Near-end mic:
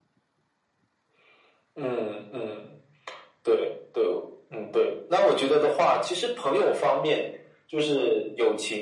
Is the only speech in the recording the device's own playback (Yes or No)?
Yes